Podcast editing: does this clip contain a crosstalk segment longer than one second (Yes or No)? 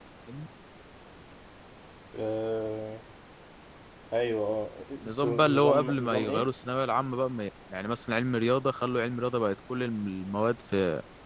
Yes